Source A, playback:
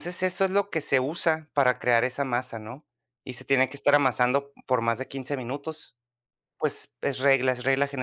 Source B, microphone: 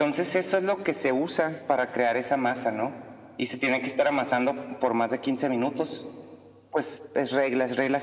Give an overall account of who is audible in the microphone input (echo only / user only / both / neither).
echo only